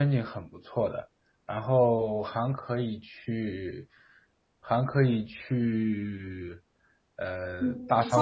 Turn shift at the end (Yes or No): Yes